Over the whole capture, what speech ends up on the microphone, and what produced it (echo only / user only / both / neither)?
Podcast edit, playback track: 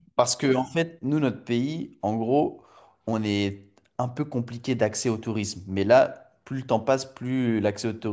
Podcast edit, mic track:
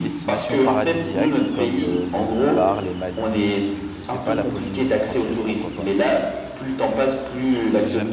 both